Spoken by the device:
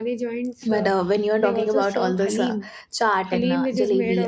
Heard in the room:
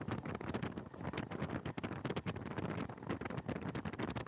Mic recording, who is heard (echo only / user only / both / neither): neither